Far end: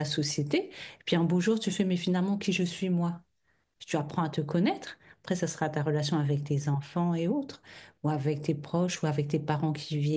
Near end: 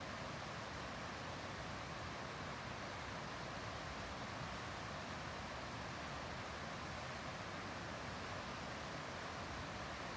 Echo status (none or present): none